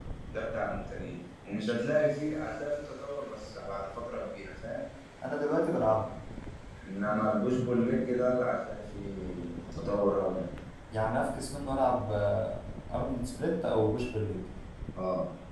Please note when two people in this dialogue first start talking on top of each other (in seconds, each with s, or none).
none